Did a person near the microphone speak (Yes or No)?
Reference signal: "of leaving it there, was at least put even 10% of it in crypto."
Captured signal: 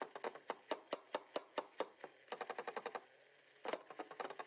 No